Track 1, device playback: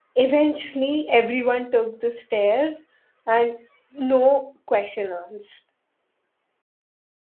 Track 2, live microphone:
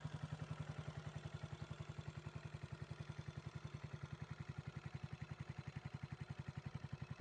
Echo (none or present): none